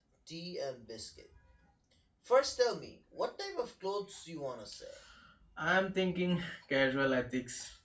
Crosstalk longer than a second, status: none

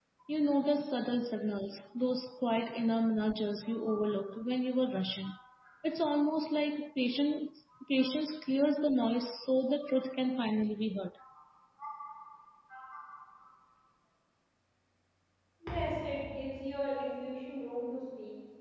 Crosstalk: none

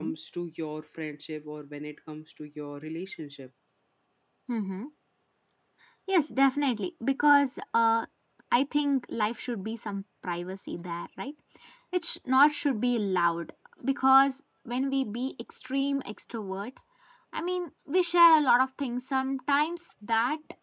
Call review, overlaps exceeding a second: none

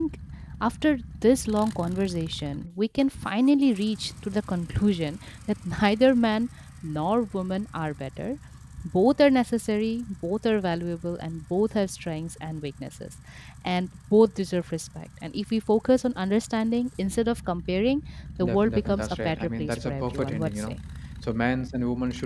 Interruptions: present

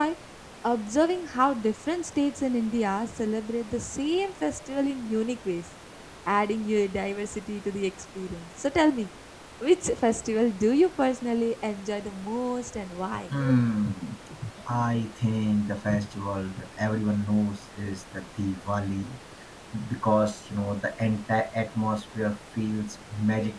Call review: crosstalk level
none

